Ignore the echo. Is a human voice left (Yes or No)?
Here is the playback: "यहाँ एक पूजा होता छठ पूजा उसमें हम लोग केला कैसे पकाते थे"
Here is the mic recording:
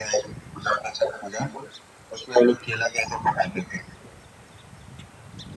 No